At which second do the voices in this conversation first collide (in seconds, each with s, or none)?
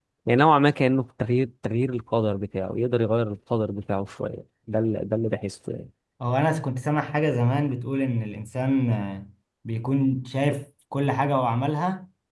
none